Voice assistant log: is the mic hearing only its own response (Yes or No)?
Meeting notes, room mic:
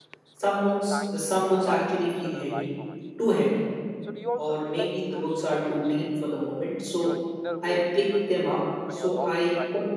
No